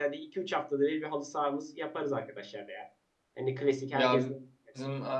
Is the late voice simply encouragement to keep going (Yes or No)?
No